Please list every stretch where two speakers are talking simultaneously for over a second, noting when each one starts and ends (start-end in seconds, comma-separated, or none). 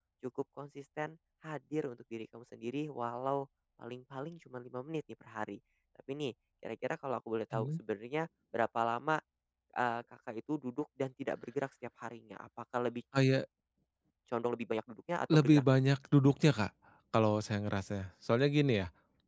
none